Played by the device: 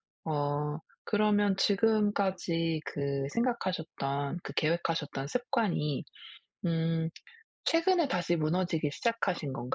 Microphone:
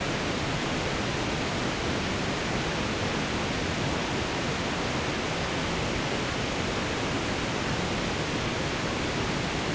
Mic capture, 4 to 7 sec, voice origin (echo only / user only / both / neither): neither